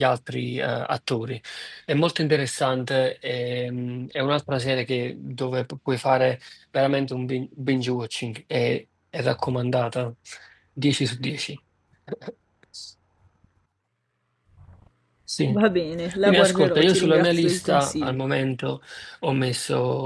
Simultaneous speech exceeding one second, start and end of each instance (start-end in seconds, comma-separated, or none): 16.2-18.2